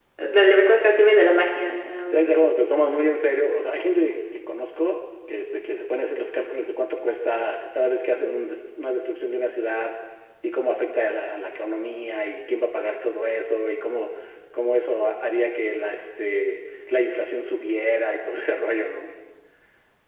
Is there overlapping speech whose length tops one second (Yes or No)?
No